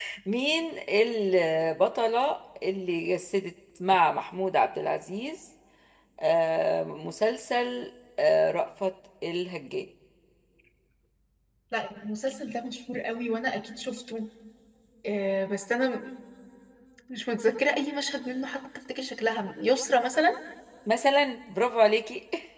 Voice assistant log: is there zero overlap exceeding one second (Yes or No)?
Yes